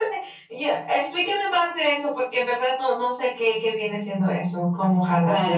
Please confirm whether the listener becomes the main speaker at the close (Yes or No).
Yes